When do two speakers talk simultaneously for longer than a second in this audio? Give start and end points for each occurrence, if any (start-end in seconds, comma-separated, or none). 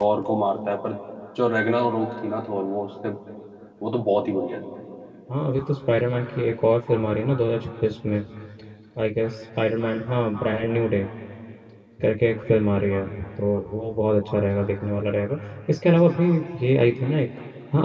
none